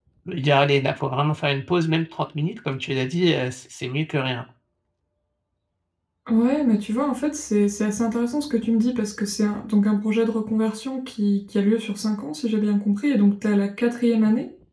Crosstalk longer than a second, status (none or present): none